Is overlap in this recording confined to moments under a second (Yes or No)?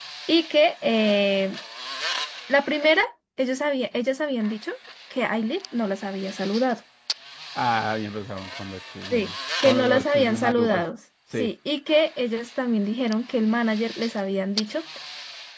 No